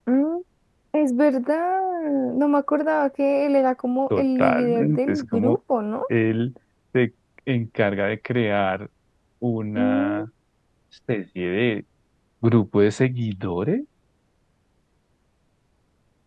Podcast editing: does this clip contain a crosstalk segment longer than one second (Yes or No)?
Yes